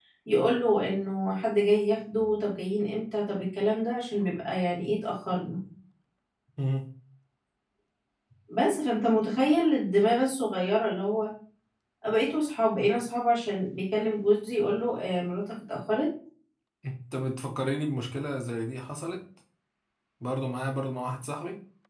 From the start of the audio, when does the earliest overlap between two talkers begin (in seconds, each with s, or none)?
none